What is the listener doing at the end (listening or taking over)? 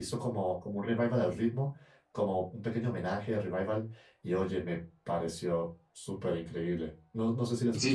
taking over